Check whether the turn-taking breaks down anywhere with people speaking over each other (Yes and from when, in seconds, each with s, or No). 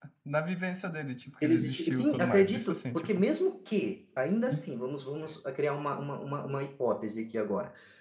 Yes, from 1.4 s